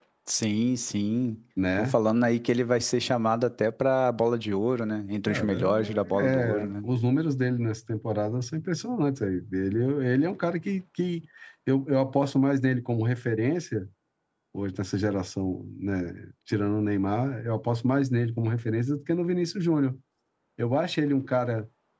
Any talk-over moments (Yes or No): Yes